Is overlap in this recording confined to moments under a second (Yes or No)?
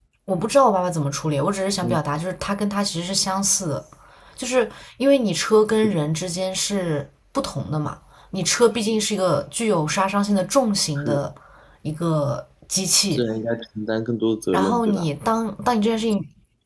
Yes